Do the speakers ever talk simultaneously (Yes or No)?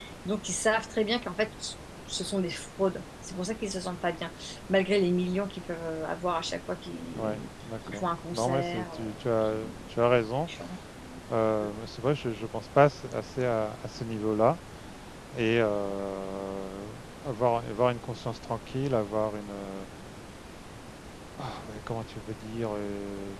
Yes